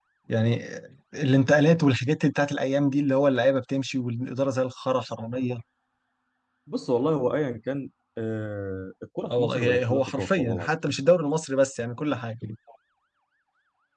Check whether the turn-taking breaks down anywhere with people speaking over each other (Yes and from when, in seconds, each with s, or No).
Yes, from 9.2 s